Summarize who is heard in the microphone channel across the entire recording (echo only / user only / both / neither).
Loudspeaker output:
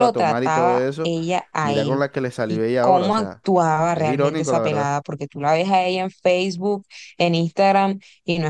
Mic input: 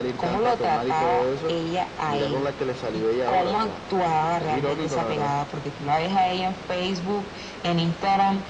echo only